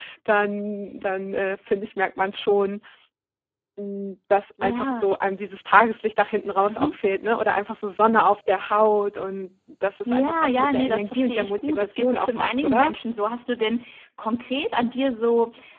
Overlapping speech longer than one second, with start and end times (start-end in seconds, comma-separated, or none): 10.1-12.9